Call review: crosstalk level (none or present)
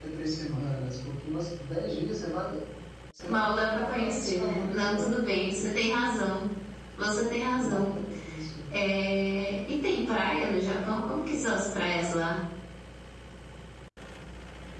present